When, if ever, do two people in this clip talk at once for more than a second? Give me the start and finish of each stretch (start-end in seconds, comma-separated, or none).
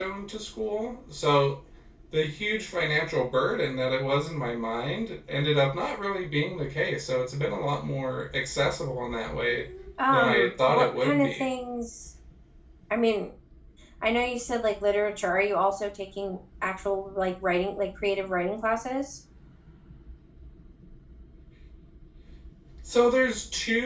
10.1-11.5